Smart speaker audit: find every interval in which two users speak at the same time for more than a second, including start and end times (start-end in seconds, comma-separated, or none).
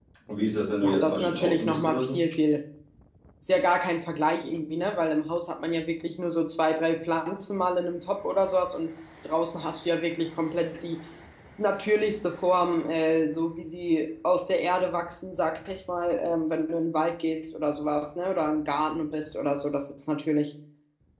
0.8-2.2